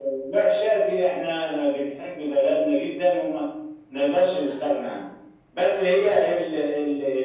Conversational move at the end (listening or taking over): listening